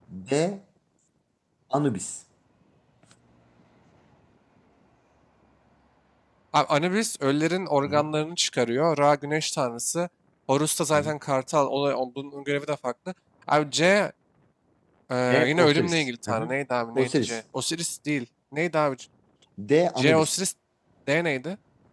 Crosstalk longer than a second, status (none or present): present